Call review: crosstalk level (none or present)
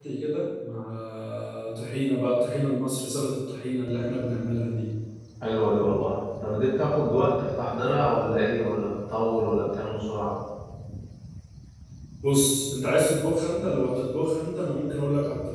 none